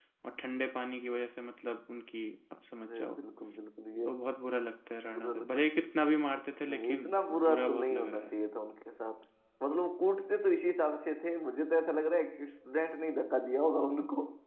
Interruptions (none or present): present